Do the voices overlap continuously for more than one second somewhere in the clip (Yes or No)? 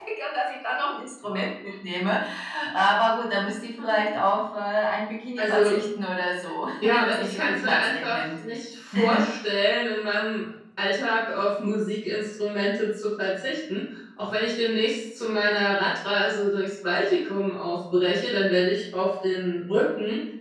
Yes